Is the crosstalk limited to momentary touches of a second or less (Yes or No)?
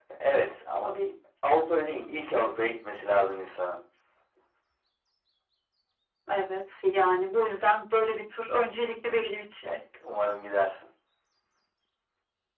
Yes